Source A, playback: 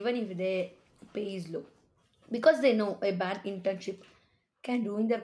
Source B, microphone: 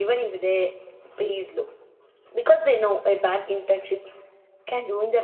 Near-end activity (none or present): none